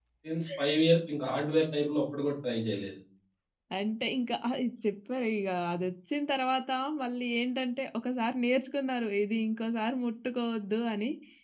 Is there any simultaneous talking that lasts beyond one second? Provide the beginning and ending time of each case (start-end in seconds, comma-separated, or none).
none